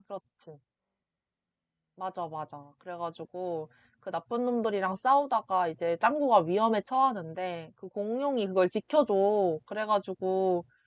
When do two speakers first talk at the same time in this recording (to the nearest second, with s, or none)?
none